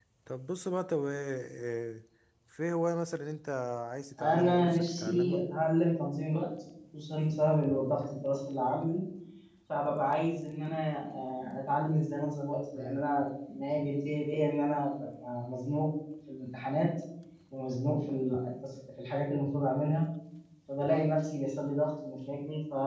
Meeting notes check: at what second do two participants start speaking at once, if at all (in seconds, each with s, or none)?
4.2 s